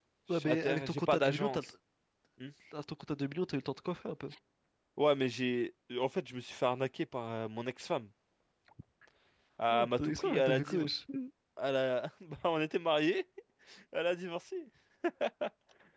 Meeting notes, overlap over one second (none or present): present